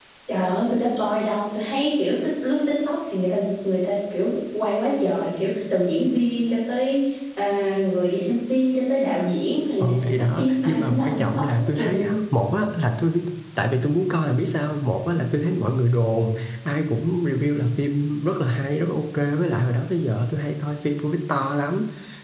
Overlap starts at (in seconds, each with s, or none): 9.8 s